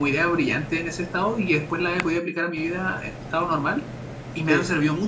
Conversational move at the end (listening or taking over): listening